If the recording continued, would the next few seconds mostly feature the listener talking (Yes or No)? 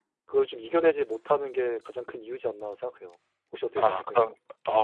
Yes